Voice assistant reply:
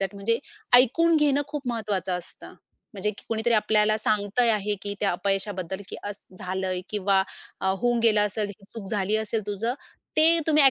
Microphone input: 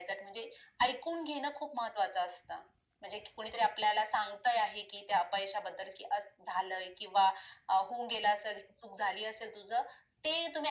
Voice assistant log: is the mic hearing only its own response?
Yes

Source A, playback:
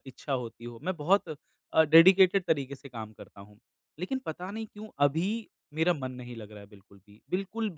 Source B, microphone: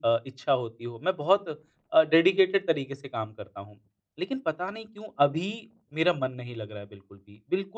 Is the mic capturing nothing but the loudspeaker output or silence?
Yes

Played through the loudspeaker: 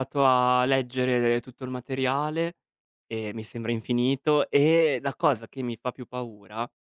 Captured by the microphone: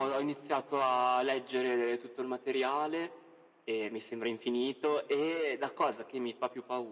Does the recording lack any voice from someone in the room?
Yes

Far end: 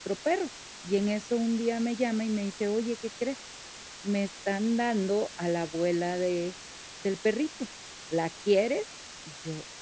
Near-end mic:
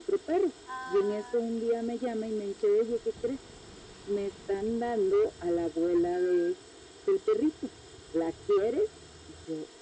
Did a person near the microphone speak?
Yes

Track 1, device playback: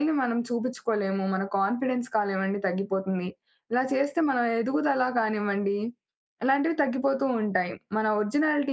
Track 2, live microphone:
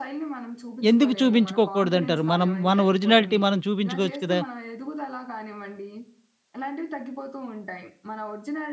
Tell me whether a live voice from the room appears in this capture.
Yes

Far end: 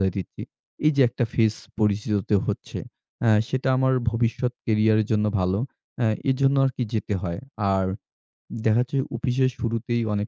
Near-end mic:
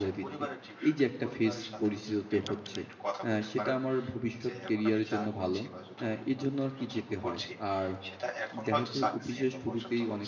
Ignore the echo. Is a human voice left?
Yes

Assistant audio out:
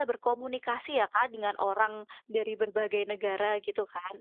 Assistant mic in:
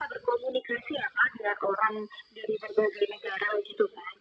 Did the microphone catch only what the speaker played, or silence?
Yes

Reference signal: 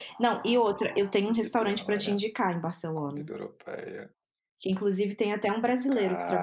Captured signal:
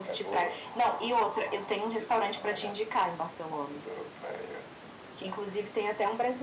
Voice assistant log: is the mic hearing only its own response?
Yes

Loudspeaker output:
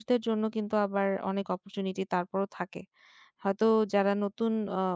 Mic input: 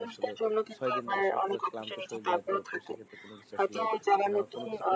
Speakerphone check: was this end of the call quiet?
No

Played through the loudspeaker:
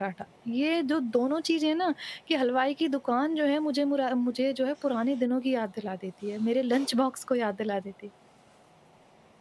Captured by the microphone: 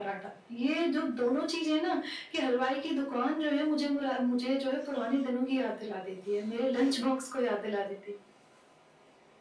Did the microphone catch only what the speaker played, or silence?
Yes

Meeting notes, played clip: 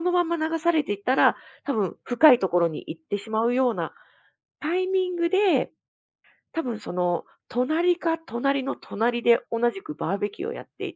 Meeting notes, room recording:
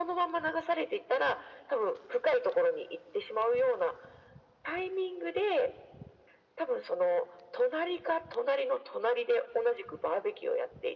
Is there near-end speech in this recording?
No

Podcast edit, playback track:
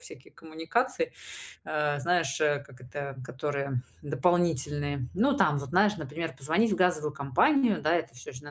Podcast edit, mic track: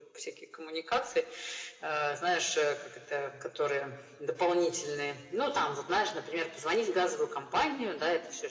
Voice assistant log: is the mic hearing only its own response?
Yes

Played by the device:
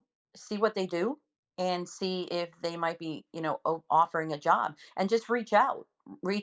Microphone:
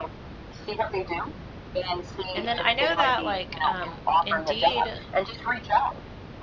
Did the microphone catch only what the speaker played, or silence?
No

